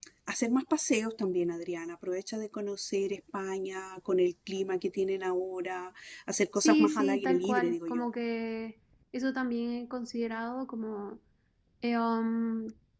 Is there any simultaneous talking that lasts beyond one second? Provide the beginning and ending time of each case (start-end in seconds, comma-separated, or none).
6.5-8.1